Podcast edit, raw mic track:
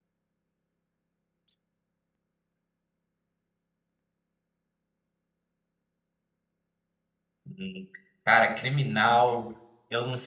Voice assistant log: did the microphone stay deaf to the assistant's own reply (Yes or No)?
Yes